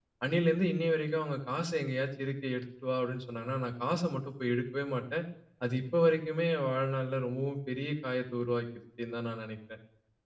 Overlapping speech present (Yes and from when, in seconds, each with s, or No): No